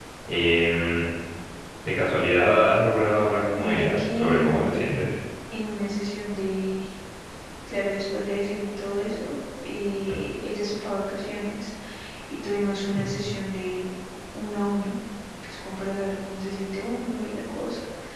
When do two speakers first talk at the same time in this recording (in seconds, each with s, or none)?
3.5 s